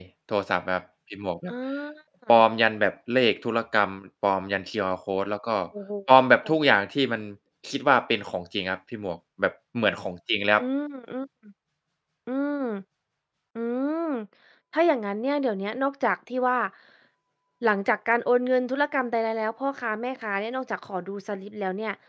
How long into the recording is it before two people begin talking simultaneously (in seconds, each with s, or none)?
none